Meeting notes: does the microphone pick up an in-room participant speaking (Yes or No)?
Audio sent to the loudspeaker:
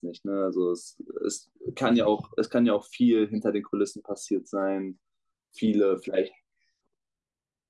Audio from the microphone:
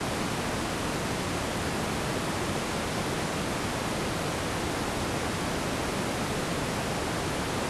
No